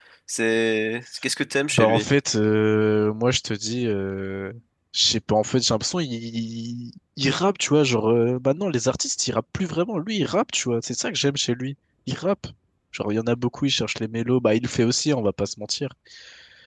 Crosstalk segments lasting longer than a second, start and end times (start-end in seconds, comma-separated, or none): none